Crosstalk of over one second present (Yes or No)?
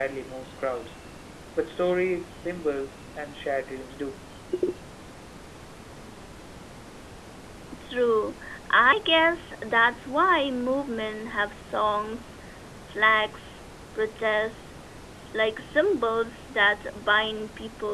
No